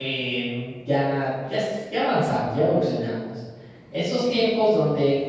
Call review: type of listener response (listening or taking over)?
listening